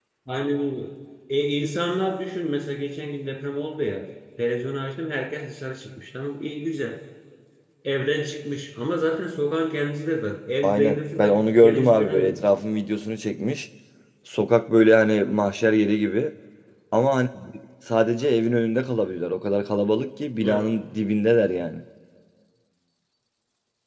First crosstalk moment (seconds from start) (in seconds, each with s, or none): 10.6 s